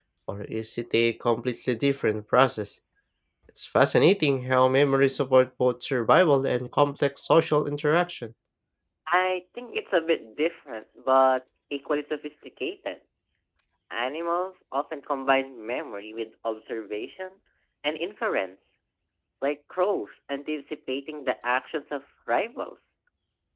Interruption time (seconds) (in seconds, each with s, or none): none